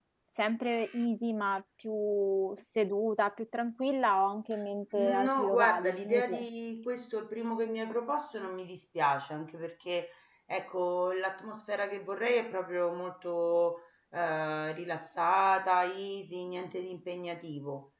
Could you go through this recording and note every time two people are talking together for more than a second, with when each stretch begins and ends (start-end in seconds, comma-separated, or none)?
5.0-6.4